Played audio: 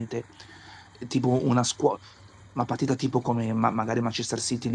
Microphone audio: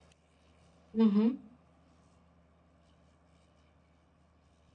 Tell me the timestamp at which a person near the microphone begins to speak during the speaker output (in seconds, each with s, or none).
1.0 s